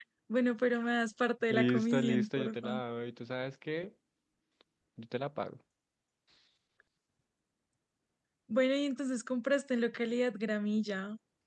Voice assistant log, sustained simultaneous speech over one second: present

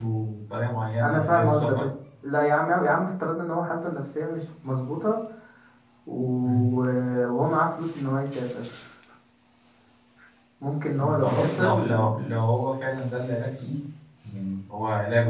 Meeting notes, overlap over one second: present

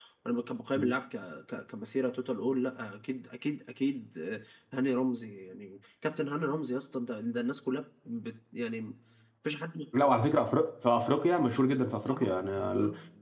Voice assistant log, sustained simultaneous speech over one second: none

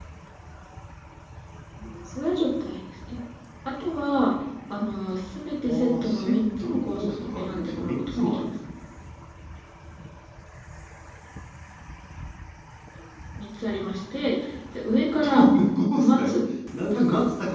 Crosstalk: present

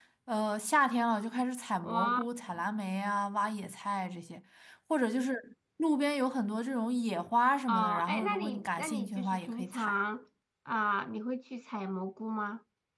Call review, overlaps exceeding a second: present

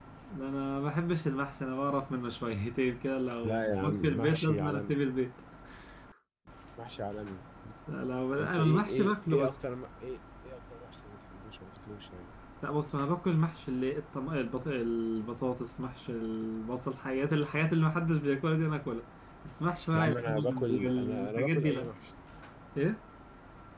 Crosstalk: present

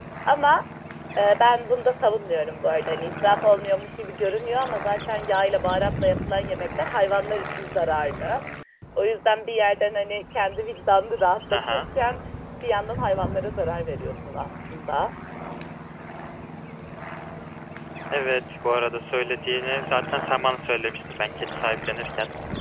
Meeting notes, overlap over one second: none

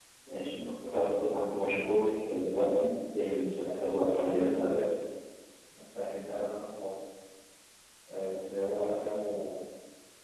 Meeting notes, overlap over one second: present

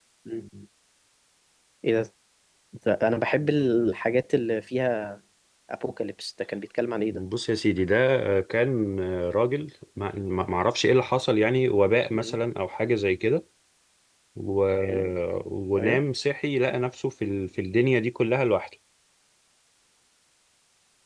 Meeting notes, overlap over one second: none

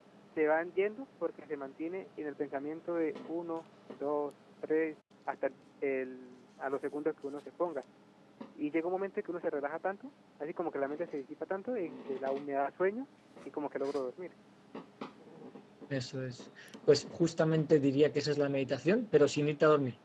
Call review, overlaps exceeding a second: none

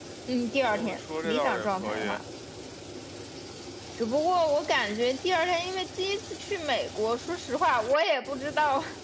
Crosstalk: present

